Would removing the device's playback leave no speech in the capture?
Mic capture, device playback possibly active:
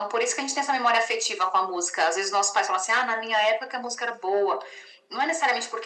Yes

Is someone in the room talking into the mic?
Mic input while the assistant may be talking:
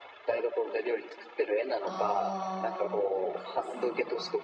Yes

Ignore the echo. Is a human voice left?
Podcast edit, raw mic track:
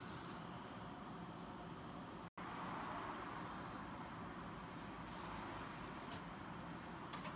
No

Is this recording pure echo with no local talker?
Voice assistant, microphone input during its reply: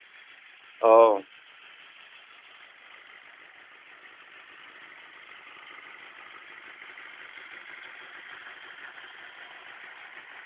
No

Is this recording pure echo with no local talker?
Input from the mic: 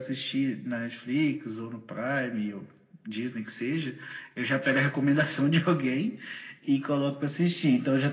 Yes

